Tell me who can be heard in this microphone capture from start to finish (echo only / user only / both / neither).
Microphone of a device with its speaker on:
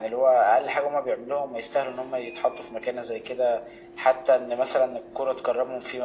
echo only